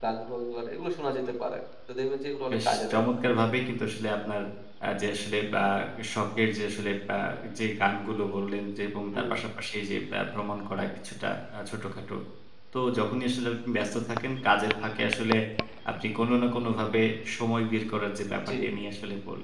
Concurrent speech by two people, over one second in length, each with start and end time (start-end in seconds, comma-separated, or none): none